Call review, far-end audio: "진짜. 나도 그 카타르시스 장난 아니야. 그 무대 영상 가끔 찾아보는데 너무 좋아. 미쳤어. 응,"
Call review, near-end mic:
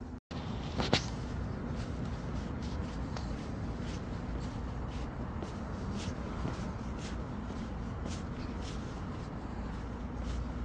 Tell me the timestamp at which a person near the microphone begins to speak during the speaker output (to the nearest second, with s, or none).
none